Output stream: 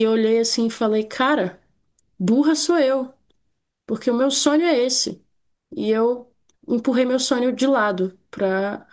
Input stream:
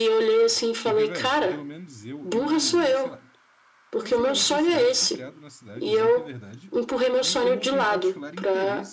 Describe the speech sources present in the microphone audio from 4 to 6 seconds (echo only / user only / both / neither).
both